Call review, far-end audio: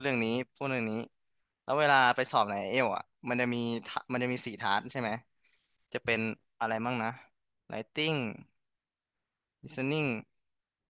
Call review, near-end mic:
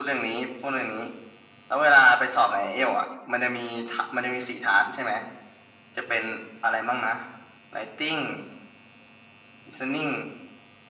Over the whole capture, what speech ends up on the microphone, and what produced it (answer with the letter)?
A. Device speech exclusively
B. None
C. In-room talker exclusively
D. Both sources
A